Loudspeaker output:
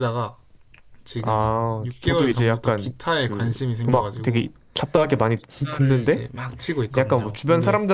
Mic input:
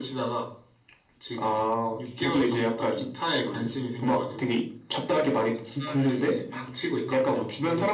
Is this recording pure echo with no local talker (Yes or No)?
Yes